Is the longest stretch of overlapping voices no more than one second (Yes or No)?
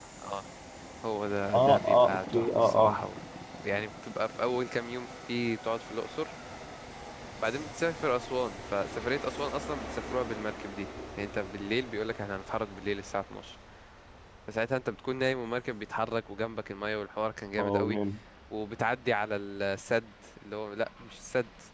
No